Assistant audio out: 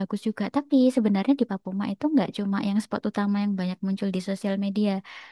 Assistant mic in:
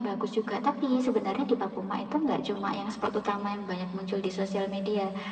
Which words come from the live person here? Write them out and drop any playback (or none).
none